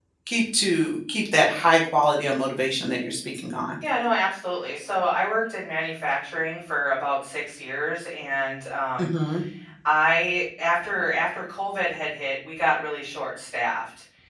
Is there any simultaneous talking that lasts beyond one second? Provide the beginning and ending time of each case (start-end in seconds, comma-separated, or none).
none